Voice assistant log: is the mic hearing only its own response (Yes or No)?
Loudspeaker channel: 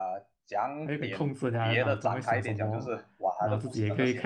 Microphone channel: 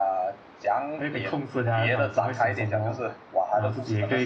Yes